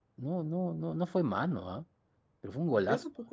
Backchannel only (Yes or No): No